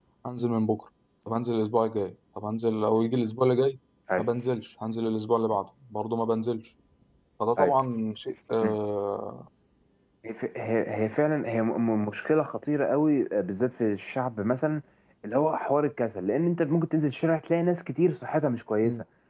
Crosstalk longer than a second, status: none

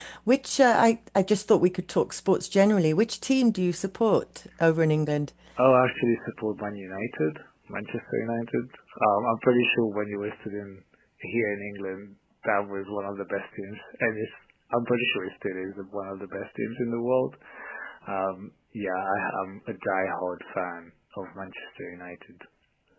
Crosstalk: none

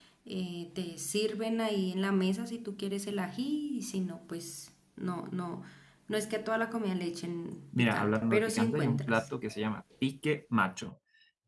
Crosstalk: present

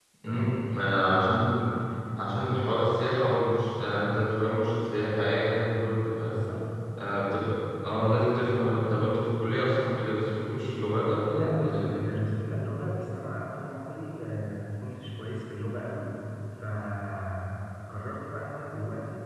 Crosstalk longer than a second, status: none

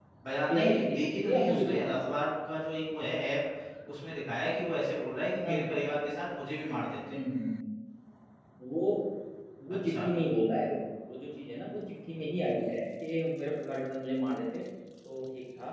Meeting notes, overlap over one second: present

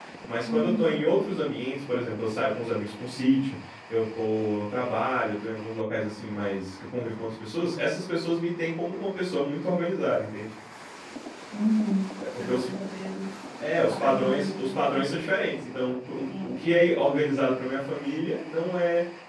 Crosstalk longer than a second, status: present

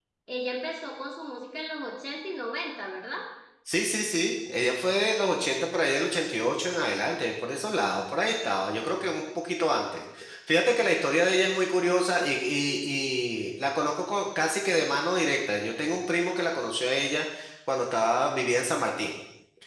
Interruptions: none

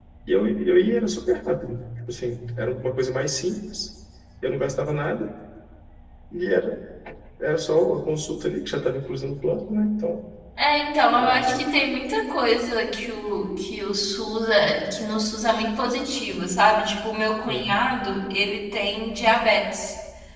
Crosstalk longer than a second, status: none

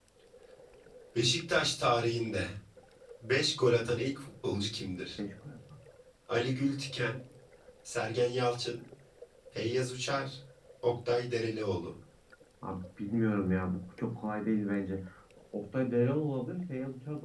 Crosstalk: none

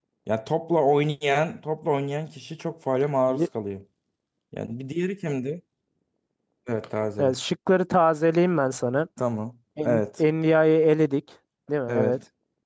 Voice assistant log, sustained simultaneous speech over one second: none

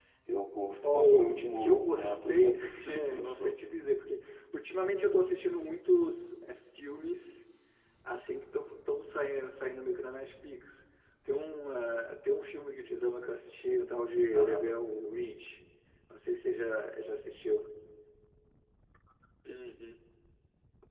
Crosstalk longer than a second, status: present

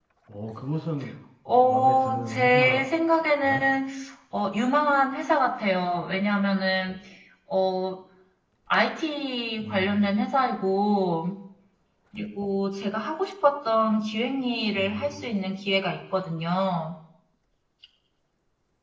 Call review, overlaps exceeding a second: present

